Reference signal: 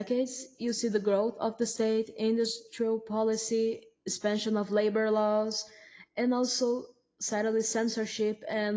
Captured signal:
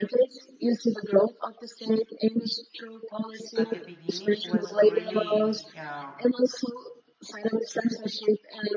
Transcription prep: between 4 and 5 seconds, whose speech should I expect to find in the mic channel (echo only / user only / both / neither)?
both